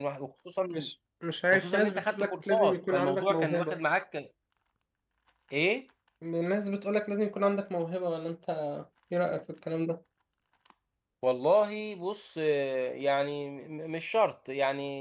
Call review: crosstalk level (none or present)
present